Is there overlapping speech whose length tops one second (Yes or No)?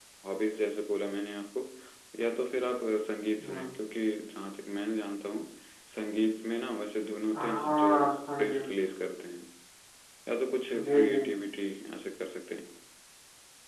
Yes